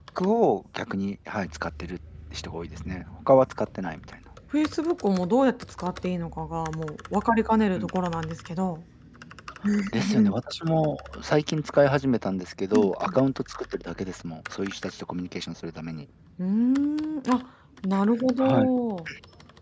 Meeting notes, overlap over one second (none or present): none